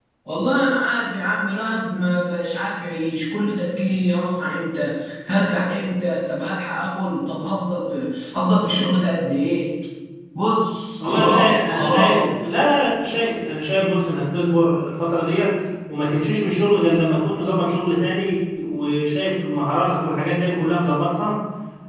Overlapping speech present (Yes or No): Yes